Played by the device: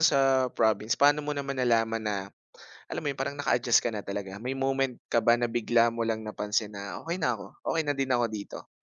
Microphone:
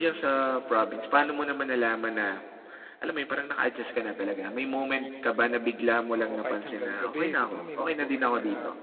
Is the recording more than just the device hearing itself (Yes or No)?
Yes